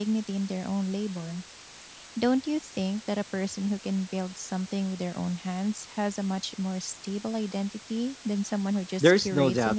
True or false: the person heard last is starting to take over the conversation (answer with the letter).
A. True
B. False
A